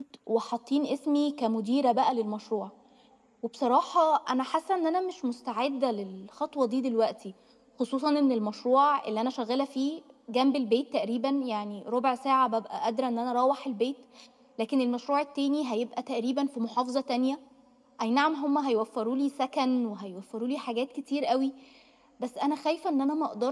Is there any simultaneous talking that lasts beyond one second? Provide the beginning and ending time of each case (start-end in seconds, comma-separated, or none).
none